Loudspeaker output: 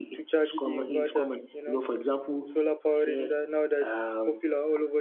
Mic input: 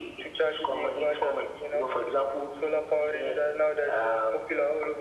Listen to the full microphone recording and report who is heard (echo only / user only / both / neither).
echo only